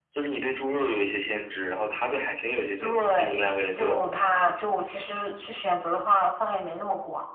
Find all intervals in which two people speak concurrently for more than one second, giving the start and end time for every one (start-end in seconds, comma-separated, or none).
2.8-4.0